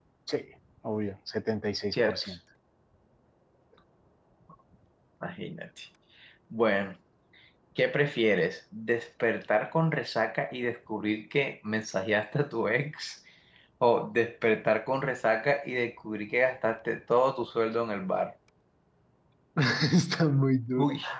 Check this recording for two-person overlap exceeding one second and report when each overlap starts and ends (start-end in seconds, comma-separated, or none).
none